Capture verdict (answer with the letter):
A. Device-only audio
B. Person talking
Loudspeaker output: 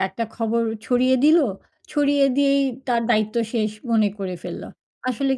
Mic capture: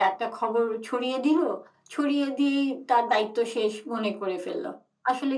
A